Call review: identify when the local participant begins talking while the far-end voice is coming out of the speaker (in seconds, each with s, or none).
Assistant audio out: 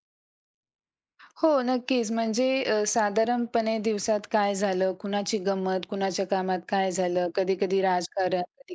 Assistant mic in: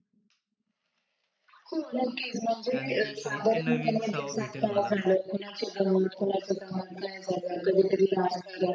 2.7 s